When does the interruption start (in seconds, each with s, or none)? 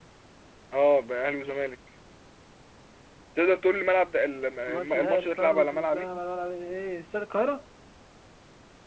4.7 s